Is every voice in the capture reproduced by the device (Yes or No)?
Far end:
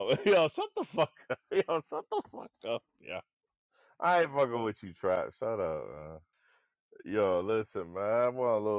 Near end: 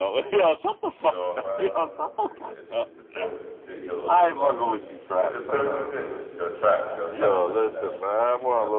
No